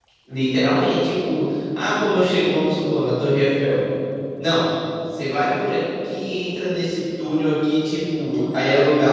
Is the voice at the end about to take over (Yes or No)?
No